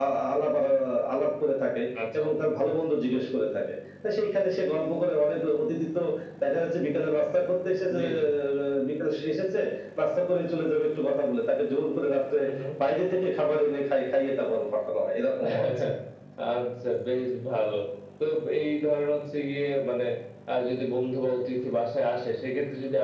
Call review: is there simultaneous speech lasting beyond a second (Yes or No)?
No